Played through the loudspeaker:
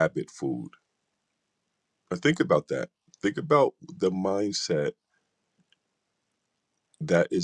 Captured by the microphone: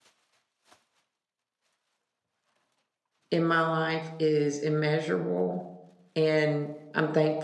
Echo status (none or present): none